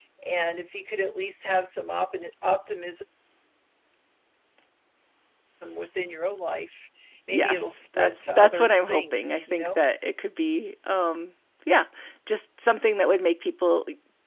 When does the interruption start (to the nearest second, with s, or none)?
7 s